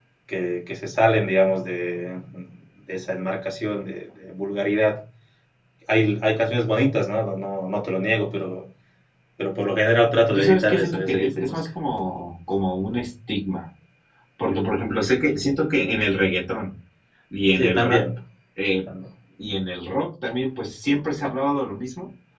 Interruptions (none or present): present